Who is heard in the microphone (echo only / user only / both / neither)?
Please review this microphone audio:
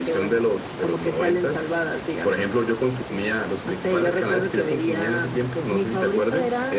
echo only